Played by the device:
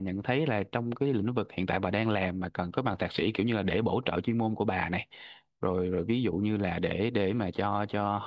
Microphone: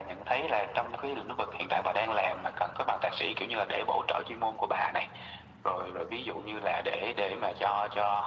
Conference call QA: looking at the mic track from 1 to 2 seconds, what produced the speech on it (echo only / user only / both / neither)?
echo only